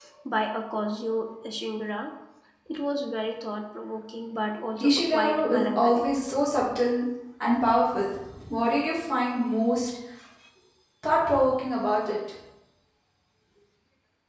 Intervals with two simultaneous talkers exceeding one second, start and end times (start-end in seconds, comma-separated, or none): 4.8-6.0